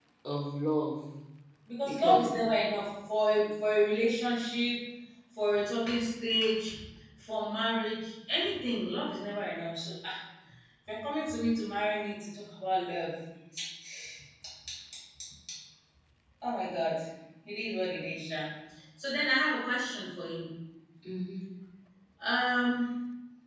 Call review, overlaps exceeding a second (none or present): none